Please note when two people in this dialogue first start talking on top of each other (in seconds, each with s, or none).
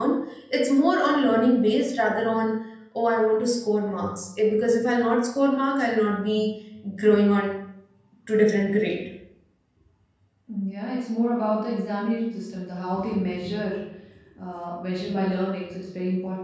none